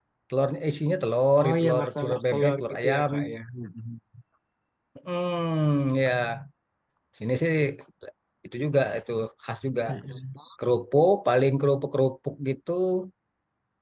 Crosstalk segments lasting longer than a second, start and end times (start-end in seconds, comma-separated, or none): 1.4-3.0